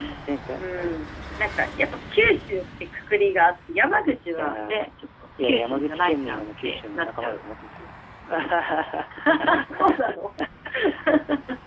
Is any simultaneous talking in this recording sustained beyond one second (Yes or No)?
Yes